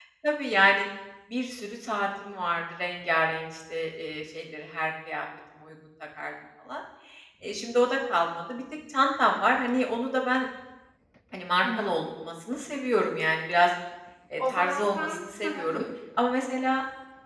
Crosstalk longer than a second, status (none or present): present